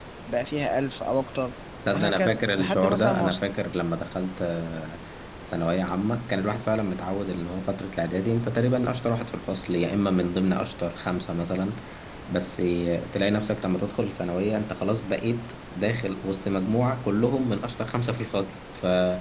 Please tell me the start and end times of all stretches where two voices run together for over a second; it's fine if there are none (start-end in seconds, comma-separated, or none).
1.9-3.4